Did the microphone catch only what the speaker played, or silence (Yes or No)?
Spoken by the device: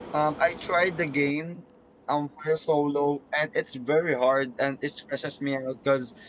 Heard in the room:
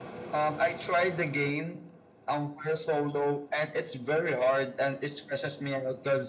Yes